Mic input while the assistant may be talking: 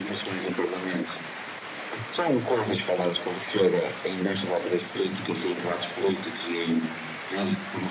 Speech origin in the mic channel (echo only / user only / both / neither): echo only